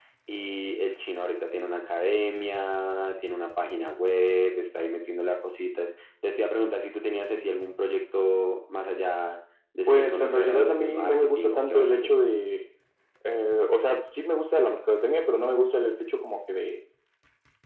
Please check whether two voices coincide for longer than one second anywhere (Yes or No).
Yes